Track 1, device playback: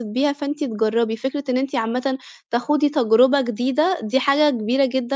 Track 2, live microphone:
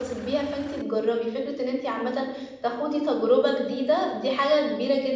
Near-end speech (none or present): none